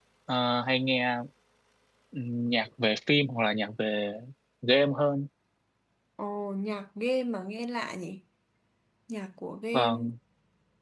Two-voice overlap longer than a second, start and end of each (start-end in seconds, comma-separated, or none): none